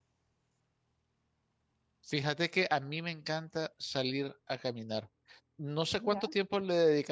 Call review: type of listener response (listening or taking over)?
listening